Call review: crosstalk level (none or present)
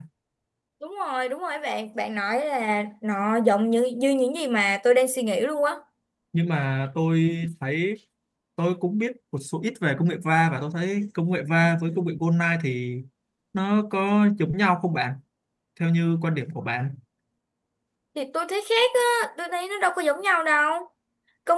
none